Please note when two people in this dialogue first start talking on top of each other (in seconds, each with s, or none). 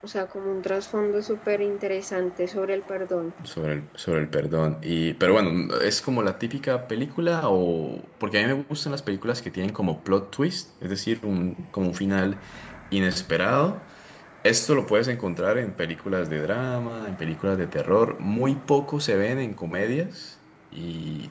none